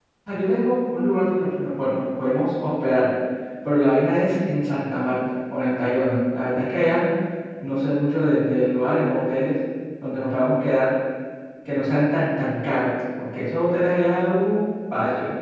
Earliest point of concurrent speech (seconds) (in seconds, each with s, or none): none